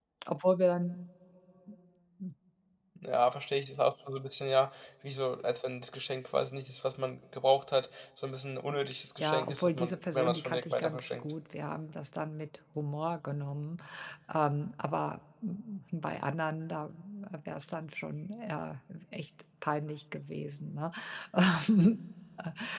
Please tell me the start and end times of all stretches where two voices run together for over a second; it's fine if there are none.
9.2-11.3

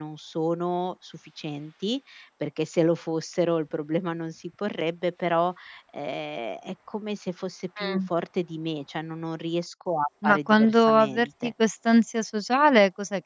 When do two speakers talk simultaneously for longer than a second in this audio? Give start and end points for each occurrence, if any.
10.2-11.5

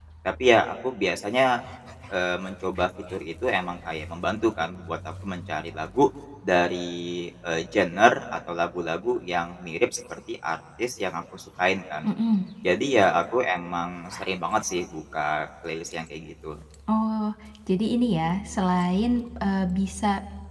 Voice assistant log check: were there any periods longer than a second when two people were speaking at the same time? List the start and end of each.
none

